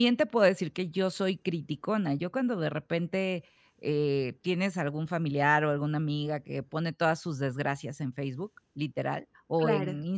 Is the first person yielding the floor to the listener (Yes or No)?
No